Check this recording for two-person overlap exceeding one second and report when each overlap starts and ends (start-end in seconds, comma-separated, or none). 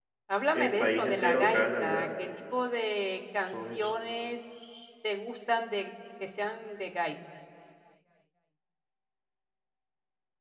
0.5-2.1